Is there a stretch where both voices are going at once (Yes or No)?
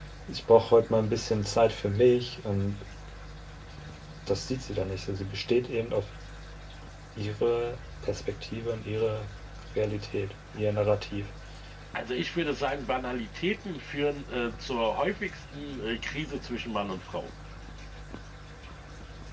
No